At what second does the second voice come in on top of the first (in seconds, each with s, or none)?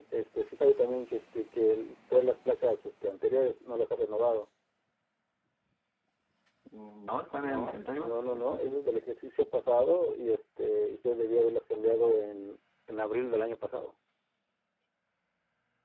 7.4 s